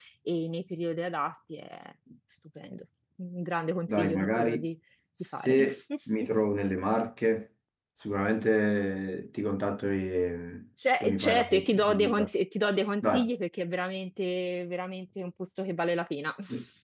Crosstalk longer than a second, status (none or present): present